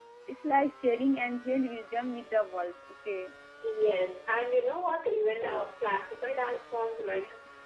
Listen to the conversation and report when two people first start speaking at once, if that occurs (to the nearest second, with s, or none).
none